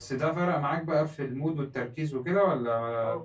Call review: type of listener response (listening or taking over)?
taking over